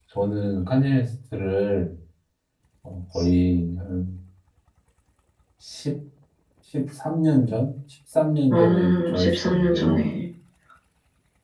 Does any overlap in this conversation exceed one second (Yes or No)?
Yes